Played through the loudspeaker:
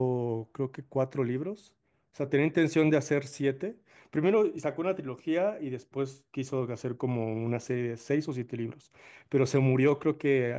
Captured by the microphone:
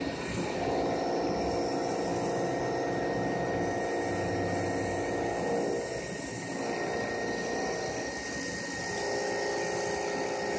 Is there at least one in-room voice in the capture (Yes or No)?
No